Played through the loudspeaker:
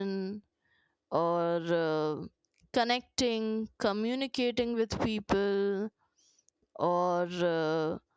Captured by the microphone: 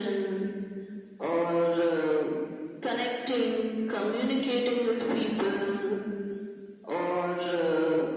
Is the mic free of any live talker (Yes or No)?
Yes